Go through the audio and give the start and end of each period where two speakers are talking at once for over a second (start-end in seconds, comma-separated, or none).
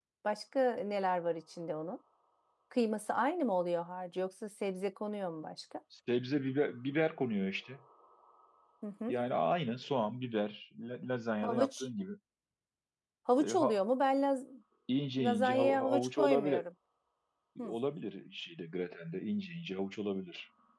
15.2-16.6